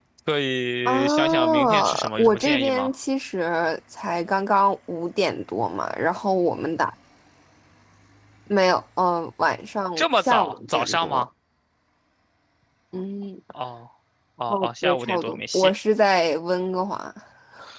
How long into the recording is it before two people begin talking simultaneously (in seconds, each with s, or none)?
0.8 s